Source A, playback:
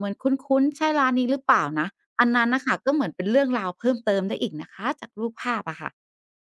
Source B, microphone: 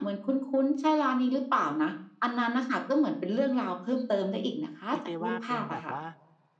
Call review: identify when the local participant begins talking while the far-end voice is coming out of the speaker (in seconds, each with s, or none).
4.9 s